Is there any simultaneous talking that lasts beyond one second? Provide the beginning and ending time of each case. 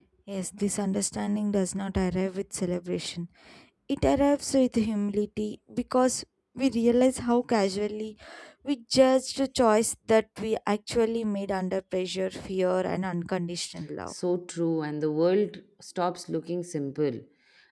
none

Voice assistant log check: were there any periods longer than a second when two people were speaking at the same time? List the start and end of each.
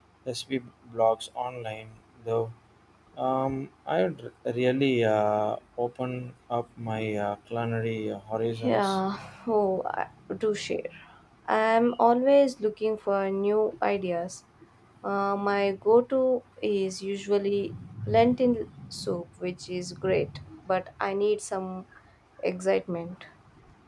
none

